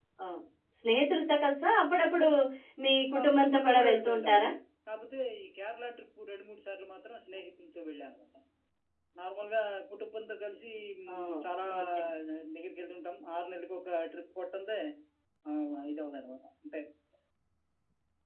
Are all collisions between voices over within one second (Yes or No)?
No